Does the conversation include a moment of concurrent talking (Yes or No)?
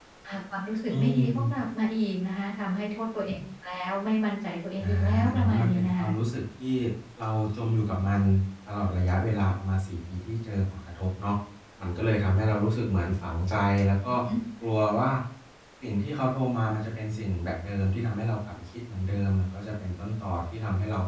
Yes